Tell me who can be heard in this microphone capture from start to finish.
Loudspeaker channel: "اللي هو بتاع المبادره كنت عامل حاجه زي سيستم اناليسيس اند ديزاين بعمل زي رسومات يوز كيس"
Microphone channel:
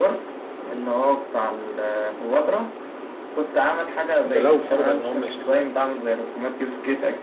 both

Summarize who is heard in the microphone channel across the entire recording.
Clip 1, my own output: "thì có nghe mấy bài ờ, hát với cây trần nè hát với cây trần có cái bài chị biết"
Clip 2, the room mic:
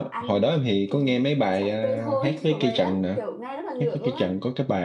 both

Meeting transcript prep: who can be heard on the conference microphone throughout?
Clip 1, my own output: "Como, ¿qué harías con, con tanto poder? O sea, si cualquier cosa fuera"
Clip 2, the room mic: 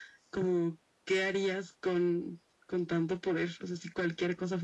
echo only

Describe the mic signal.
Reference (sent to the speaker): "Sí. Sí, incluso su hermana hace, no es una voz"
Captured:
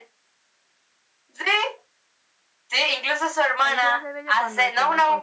both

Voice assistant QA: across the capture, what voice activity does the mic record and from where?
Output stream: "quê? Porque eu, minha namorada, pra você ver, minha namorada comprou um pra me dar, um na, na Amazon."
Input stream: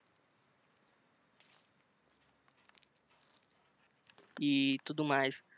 user only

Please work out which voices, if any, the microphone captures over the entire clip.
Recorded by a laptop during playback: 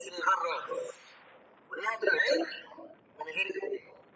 echo only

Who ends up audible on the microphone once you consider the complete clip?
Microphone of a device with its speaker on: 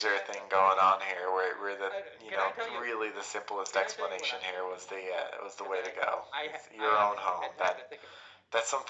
echo only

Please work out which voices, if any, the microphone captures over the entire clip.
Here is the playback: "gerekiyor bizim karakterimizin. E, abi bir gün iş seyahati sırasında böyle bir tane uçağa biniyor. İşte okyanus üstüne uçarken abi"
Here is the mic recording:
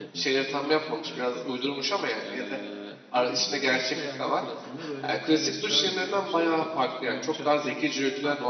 both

